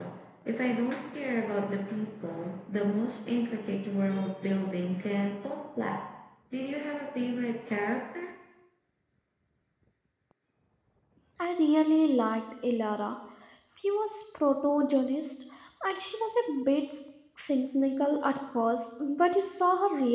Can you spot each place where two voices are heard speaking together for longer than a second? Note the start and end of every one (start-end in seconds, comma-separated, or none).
none